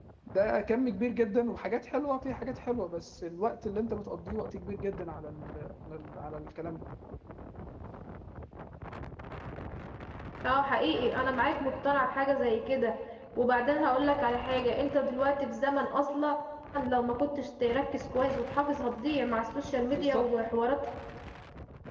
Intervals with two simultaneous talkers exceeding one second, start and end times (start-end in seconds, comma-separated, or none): none